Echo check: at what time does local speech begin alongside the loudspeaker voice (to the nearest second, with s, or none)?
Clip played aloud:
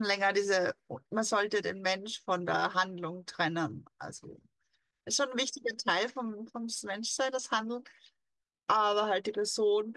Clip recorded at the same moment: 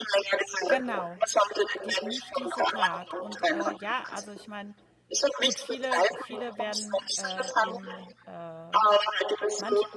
1 s